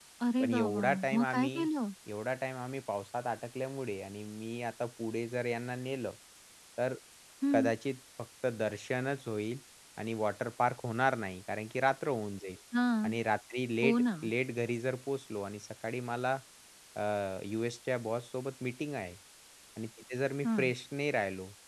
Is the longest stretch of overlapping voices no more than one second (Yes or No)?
No